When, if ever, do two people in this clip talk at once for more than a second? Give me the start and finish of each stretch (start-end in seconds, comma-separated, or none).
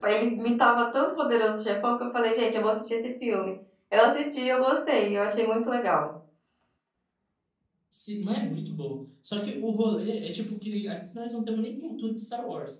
none